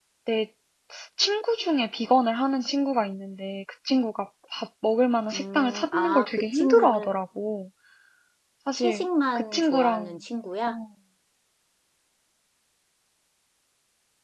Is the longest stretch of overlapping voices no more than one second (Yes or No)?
No